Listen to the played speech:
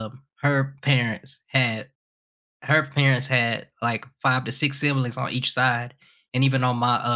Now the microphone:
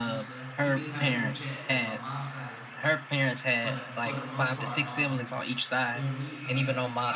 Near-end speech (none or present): present